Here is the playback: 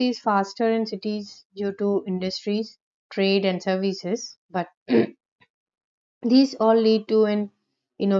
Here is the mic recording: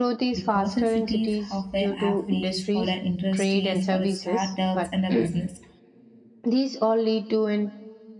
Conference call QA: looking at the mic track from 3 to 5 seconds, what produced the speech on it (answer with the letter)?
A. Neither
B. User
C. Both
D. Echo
C